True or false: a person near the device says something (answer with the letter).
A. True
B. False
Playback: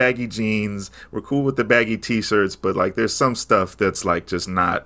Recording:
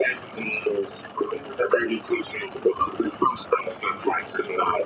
B